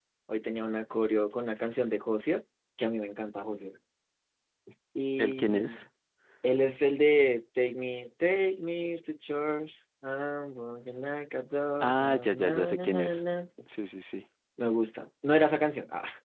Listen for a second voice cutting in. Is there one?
Yes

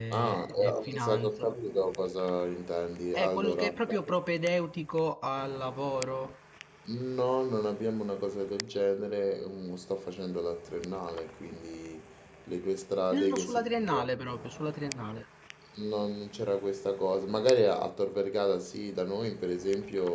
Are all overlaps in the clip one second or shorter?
No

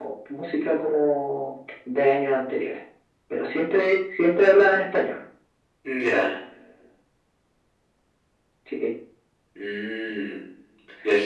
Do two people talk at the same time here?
No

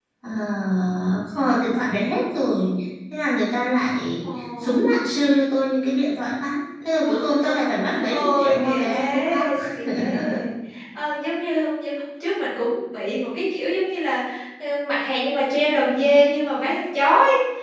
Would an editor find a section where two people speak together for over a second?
Yes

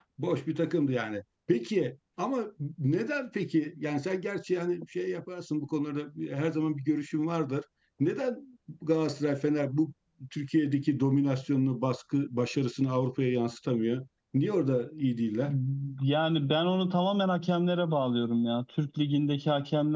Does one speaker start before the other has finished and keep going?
No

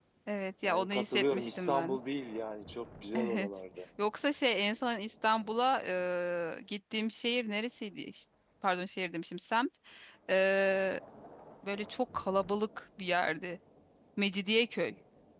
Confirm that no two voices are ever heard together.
No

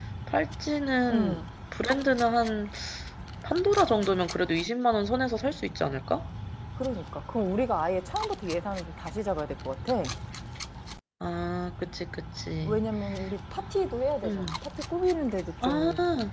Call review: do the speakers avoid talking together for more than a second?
Yes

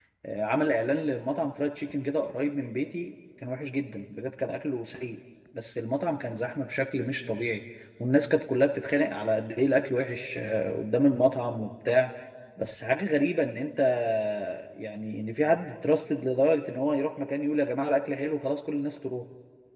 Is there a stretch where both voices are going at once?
No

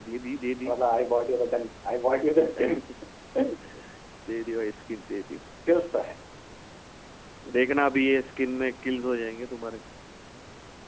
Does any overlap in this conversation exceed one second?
No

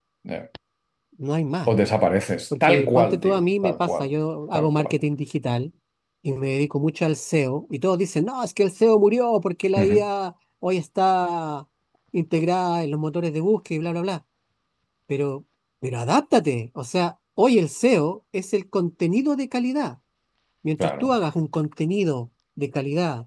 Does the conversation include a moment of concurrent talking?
Yes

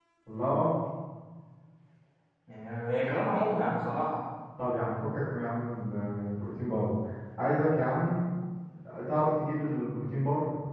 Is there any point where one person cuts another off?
No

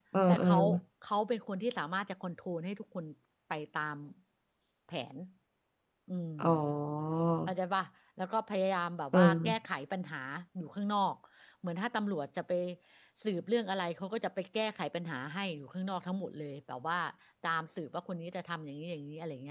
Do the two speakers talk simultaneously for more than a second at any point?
No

